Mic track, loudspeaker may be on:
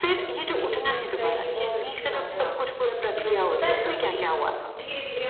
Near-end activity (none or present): present